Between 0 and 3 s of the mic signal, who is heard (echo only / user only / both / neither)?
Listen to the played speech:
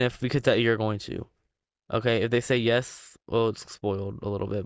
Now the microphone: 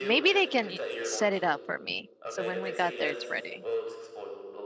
both